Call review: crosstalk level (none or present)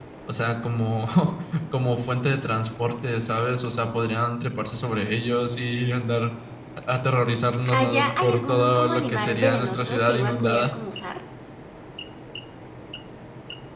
present